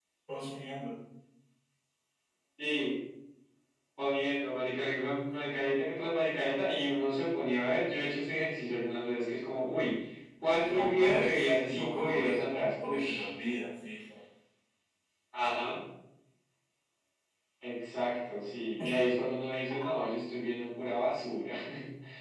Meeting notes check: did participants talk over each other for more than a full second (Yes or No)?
Yes